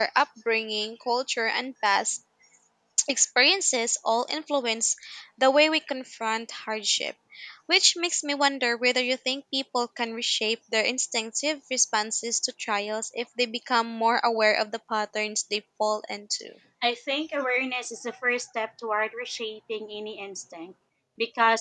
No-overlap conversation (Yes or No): Yes